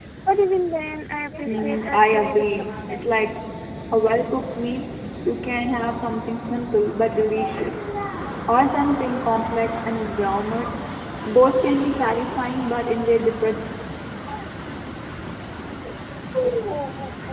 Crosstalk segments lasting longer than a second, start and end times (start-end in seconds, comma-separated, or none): 1.4-3.3